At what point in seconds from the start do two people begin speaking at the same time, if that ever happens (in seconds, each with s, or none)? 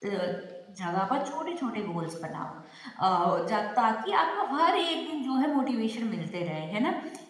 none